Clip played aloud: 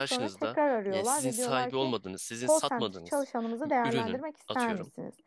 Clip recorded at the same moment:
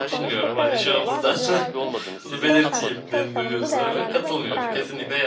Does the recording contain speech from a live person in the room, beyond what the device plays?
Yes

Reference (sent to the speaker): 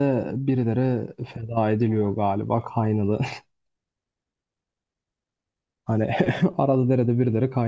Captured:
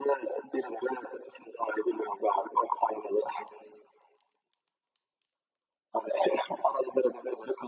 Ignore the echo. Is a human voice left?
No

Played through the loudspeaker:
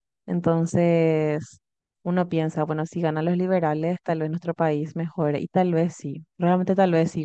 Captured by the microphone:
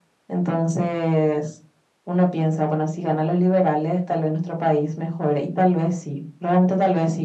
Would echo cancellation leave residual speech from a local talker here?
No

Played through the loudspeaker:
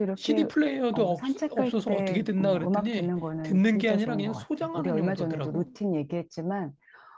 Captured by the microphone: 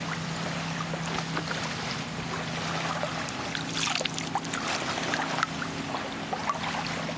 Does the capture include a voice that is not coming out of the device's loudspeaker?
No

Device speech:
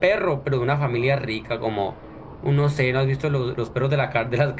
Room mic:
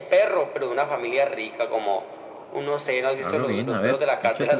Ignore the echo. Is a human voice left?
Yes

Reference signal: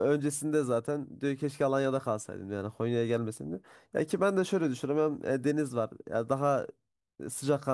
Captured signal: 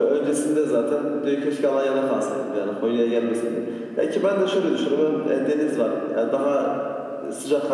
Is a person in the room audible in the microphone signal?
No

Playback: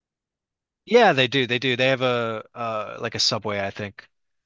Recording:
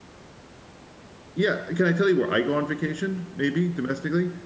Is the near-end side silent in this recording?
No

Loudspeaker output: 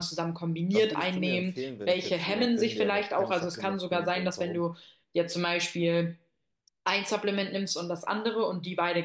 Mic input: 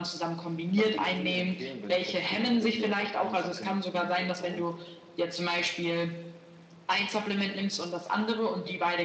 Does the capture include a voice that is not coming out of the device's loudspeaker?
No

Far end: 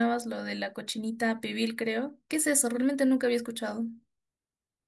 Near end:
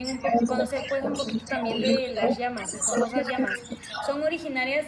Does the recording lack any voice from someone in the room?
No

